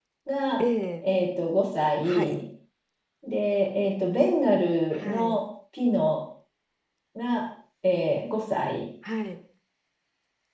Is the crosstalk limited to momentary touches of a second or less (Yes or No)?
Yes